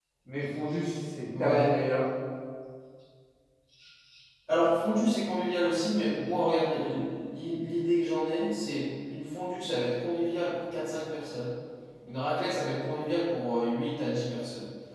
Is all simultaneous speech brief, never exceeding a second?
Yes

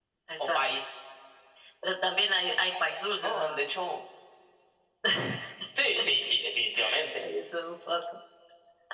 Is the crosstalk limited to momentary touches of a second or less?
Yes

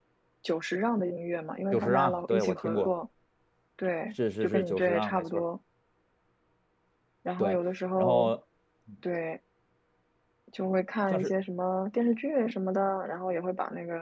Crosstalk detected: Yes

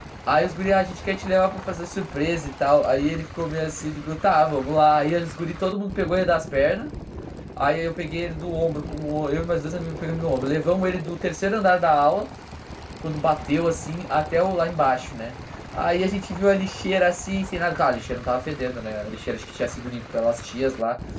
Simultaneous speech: No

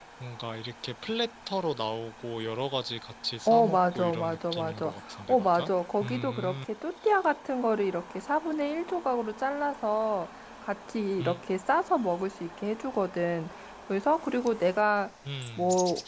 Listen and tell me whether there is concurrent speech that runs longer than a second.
Yes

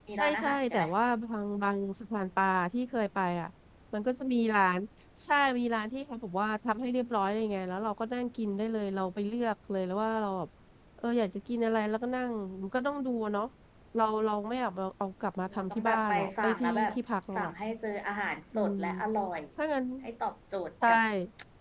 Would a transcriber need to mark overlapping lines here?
Yes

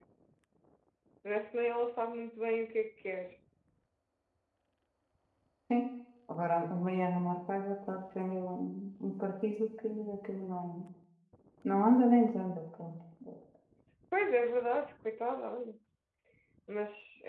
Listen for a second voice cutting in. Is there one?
No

